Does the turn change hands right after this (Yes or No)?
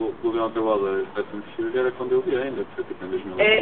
Yes